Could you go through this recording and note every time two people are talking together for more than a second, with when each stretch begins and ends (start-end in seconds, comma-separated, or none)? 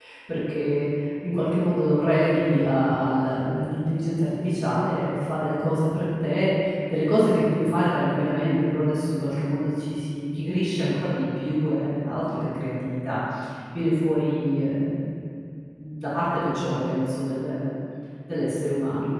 none